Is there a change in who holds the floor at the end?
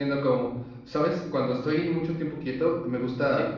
No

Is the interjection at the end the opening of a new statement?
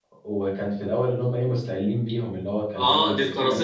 Yes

